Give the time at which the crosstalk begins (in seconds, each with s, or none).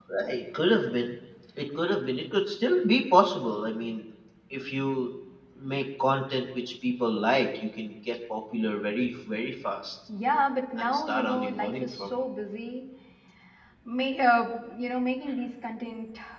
10.8 s